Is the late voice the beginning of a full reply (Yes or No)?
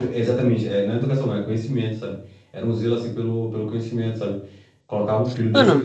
No